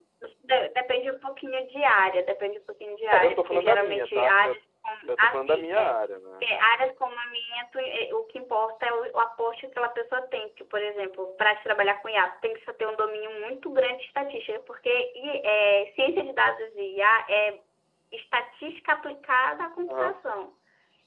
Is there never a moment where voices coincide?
No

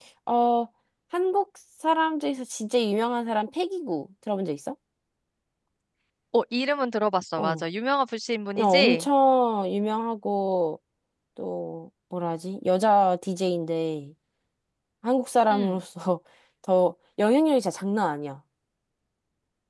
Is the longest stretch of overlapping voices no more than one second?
Yes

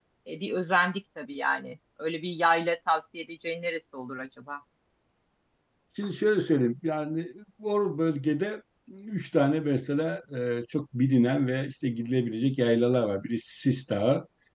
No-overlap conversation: Yes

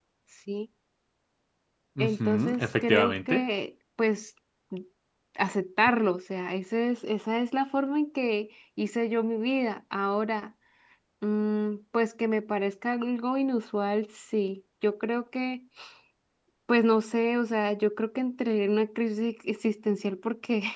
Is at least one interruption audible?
Yes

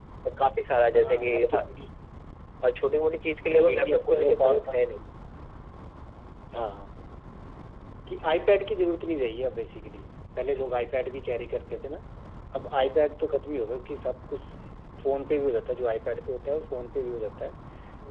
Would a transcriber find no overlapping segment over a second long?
No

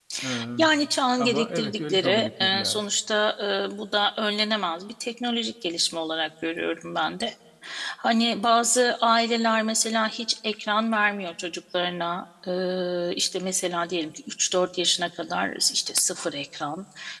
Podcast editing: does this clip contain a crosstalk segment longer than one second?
Yes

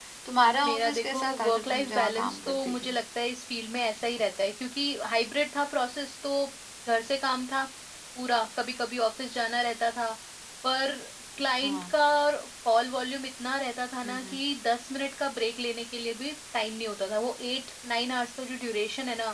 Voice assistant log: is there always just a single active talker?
No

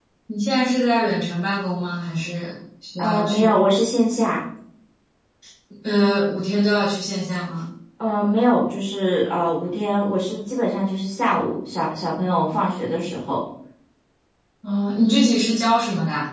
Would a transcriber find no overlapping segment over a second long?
Yes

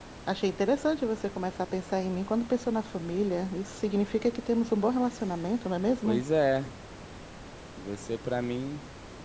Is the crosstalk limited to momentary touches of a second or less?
Yes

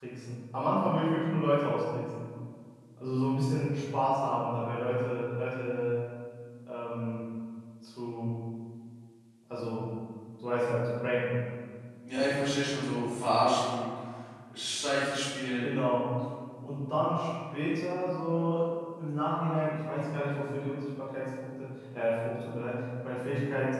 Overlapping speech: No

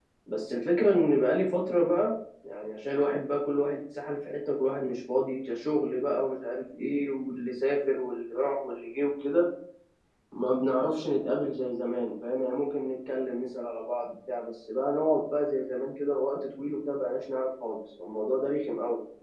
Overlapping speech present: No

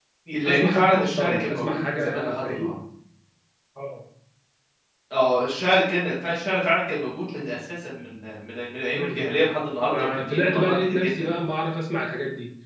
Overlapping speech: Yes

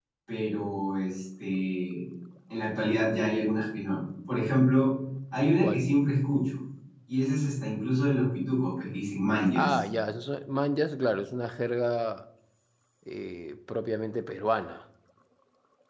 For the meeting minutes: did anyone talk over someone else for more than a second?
No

